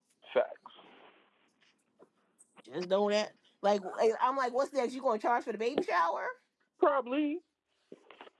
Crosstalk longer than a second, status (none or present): none